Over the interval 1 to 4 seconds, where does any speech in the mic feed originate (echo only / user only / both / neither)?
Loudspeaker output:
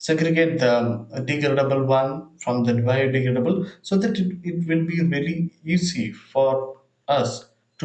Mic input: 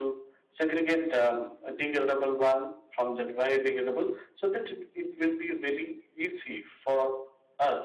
echo only